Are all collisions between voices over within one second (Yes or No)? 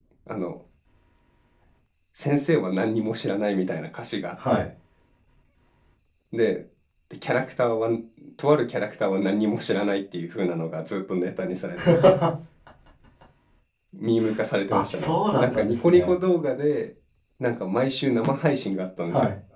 No